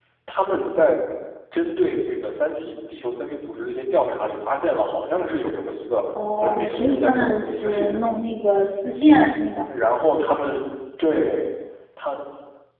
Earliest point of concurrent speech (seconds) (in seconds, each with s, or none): 6.4 s